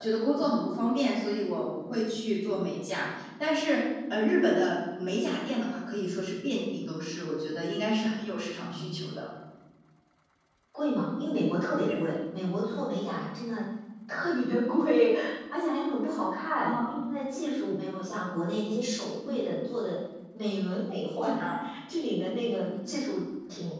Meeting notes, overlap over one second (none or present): none